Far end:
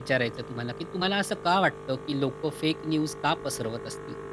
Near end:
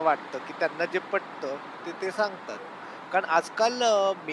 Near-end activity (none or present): present